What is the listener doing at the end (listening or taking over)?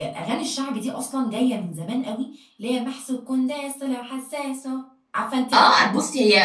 taking over